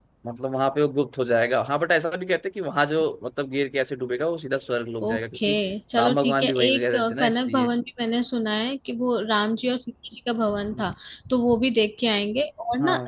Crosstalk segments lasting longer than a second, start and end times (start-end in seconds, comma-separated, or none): 6.0-7.7